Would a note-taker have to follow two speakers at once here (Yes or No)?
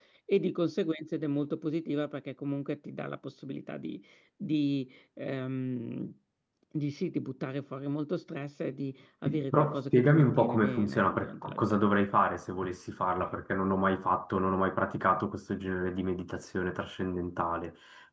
Yes